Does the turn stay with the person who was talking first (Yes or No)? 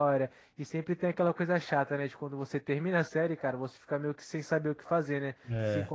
Yes